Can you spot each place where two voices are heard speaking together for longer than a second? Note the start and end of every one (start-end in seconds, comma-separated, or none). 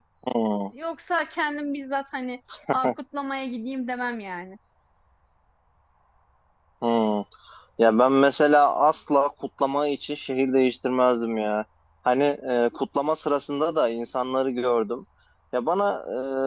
none